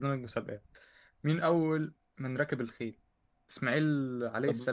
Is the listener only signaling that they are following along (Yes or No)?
Yes